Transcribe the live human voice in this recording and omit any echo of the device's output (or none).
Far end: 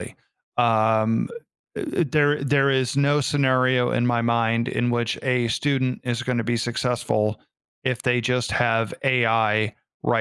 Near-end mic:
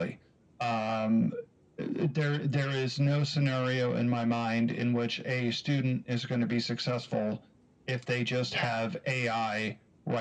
Yeah.